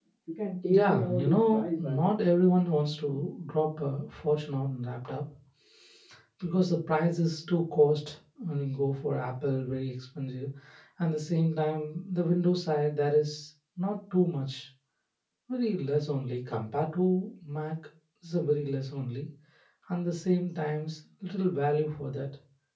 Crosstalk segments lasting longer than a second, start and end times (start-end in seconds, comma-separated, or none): 0.7-2.1